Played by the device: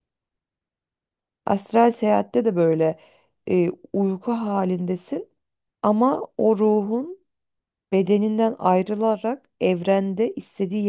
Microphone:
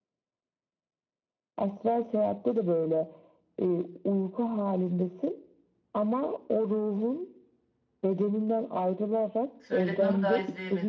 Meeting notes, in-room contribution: present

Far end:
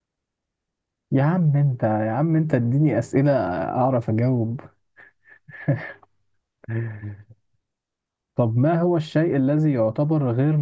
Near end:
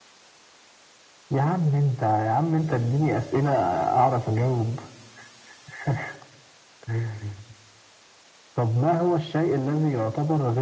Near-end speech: none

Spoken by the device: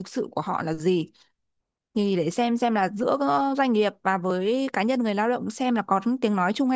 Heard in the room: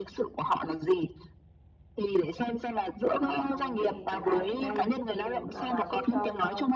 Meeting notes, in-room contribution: present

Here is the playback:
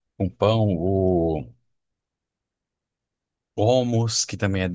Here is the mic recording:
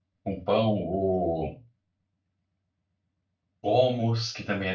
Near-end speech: none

